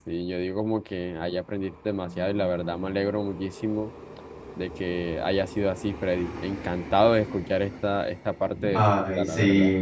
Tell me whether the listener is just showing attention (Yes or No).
No